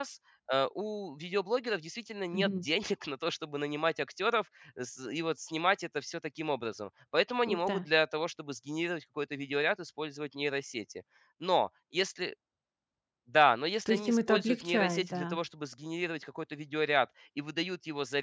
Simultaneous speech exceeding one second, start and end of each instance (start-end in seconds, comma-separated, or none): 13.9-15.4